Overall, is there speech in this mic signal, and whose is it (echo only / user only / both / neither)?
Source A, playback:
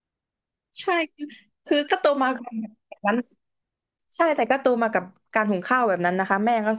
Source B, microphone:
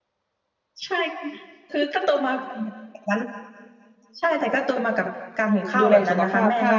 both